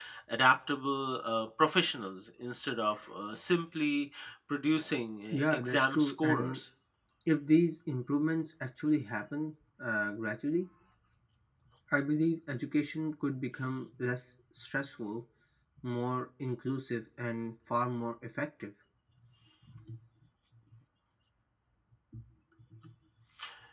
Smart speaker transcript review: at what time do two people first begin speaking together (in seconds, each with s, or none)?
5.3 s